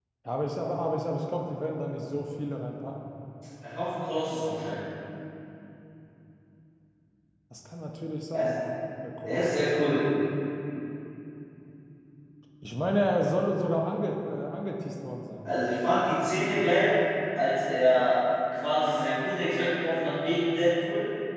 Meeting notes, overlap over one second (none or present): none